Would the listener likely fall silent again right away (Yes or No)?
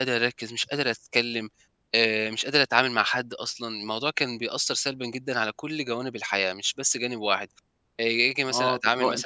No